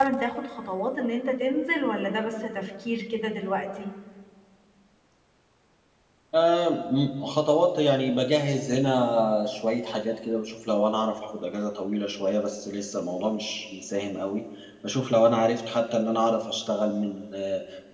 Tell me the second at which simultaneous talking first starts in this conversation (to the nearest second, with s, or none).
none